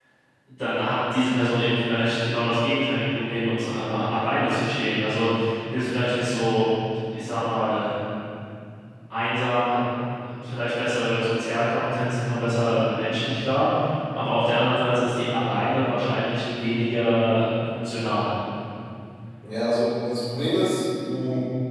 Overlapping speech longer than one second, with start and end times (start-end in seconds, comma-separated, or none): none